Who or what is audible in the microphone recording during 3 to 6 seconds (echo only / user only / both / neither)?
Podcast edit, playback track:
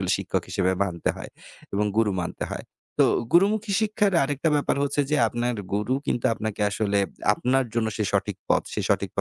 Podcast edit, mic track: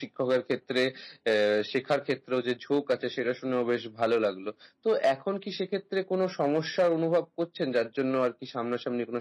user only